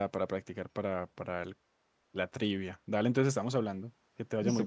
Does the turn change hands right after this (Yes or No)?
Yes